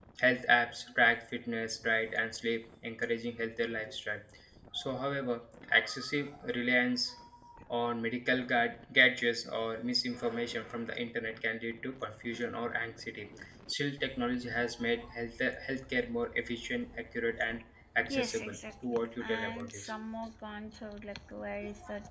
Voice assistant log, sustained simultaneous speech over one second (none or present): present